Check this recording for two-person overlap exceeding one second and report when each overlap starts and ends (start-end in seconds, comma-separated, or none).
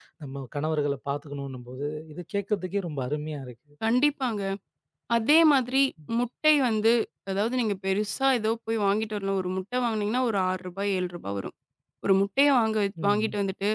none